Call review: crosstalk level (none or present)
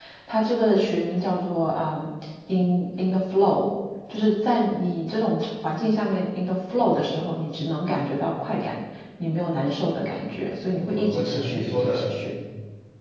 present